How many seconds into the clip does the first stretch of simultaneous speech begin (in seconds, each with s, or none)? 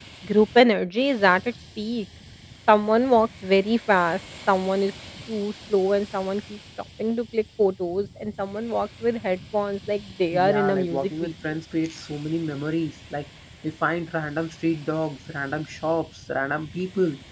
10.3 s